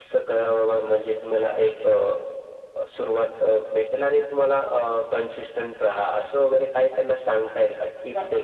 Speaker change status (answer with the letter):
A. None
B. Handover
B